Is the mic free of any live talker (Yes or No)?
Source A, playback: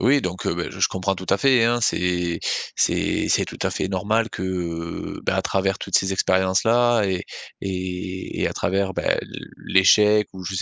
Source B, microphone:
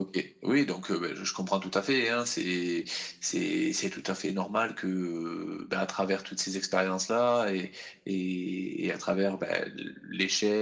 Yes